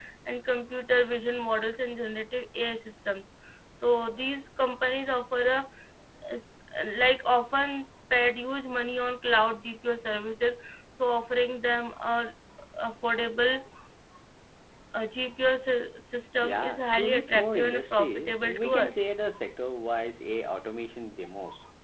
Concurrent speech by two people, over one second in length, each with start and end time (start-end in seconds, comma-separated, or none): 16.4-18.9